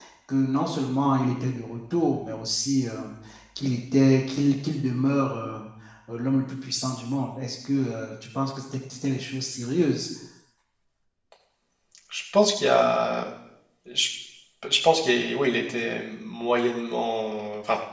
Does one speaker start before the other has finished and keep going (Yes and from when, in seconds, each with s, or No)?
No